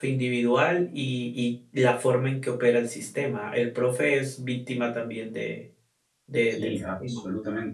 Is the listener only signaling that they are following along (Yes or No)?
No